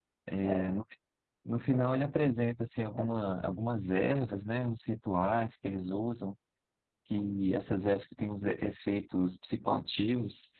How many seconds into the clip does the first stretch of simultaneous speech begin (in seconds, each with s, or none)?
none